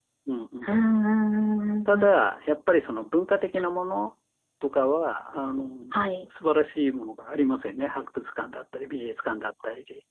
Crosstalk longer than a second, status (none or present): none